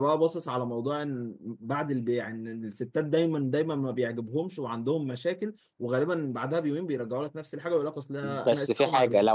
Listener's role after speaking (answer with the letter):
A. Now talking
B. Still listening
A